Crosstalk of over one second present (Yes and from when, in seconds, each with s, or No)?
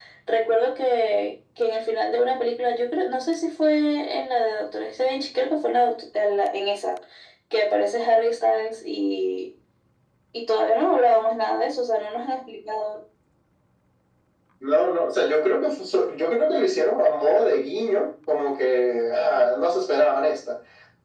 No